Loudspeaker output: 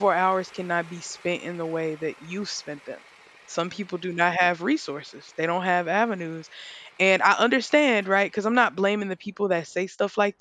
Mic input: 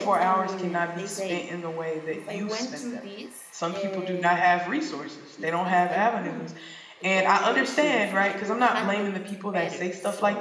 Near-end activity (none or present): present